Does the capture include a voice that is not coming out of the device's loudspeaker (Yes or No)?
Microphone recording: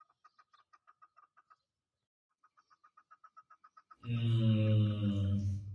Yes